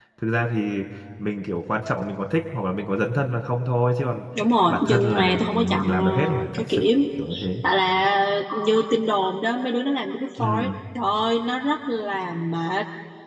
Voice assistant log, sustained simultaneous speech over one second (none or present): present